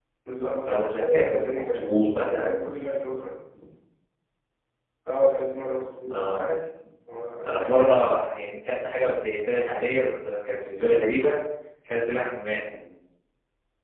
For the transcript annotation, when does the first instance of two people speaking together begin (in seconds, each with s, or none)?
0.6 s